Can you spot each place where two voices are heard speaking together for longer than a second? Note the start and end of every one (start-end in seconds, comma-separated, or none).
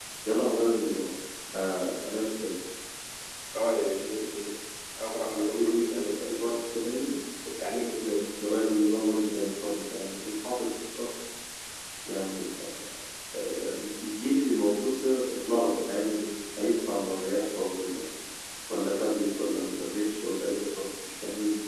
5.3-6.6